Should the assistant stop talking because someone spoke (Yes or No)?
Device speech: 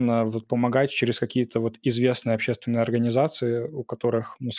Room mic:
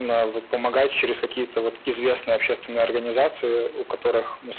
No